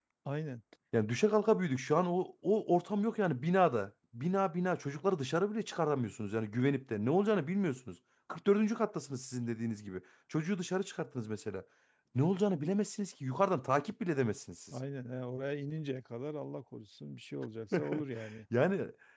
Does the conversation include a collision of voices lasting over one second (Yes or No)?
No